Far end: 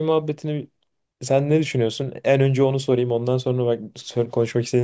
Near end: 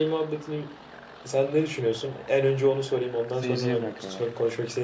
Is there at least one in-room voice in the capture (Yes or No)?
Yes